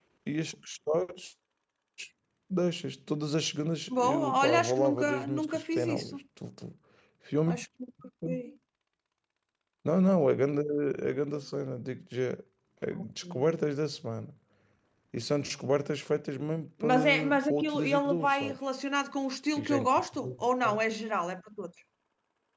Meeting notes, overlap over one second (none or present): present